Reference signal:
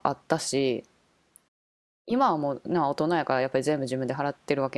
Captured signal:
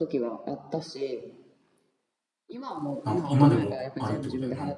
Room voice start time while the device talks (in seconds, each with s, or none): 3.0 s